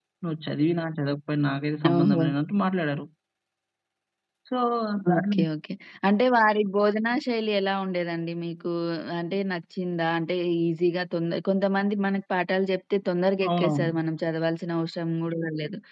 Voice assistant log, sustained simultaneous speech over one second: none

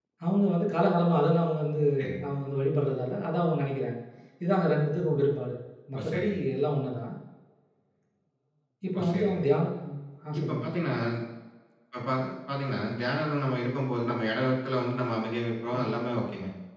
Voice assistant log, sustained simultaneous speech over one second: none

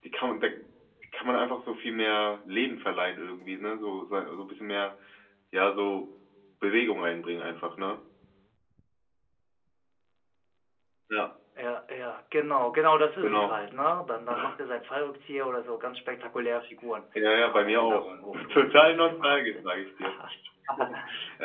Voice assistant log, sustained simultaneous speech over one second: present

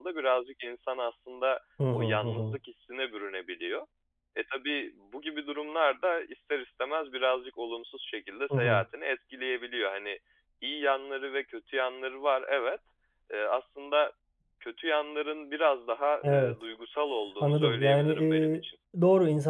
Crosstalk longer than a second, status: present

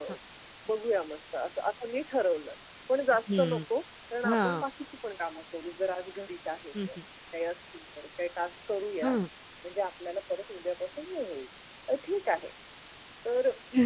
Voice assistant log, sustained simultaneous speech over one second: none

